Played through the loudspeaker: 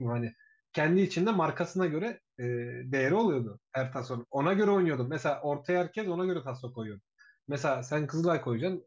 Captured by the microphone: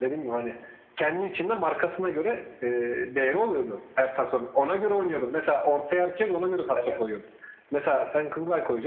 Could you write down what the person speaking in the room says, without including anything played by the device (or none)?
Evet.